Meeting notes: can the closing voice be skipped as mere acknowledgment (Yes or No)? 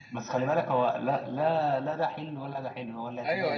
No